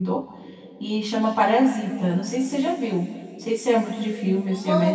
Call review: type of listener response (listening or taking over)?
taking over